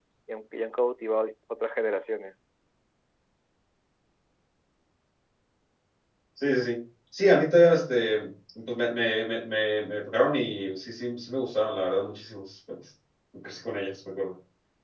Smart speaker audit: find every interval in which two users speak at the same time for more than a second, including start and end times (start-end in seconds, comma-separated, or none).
none